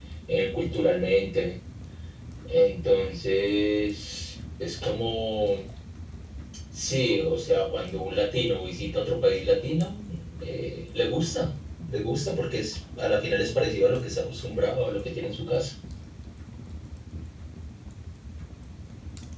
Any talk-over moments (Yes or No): No